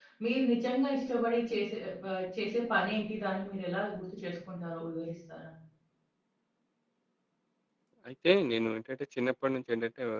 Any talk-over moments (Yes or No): No